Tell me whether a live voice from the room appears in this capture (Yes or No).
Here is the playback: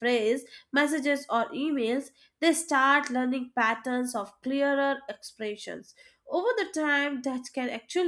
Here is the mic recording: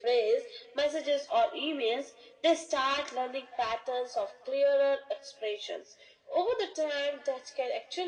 No